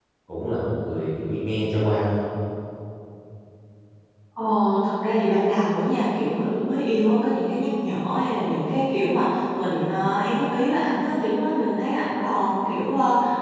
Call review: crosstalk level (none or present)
none